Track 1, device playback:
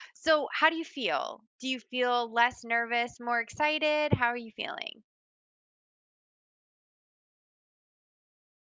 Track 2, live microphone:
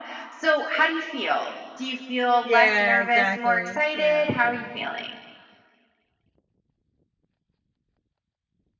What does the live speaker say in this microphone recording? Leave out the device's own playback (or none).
Yeah, exactly. Yeah.